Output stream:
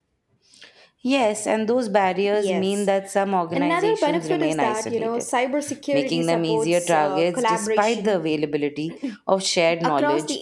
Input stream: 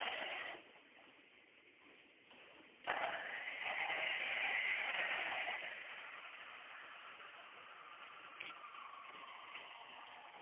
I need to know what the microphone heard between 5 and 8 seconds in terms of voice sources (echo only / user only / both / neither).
neither